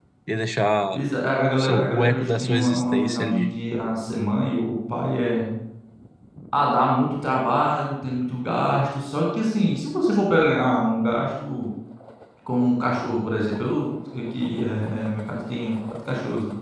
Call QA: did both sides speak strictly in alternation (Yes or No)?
No